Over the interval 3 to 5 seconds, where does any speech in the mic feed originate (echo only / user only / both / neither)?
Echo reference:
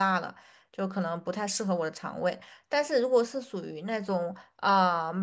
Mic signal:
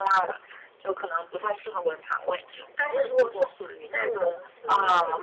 both